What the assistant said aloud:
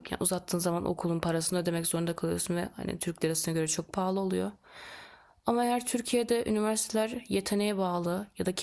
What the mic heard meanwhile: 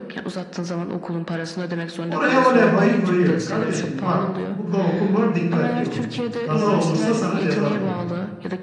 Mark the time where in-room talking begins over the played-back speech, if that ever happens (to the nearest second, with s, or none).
2 s